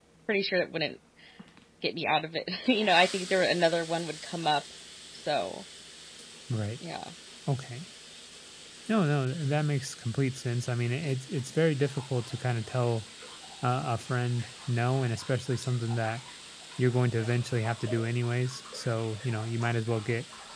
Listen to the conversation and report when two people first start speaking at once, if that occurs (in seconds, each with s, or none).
none